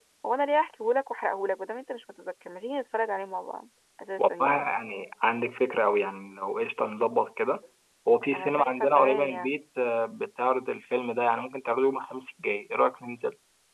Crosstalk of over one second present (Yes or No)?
Yes